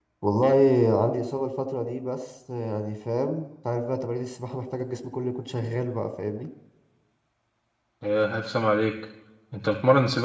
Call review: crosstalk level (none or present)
none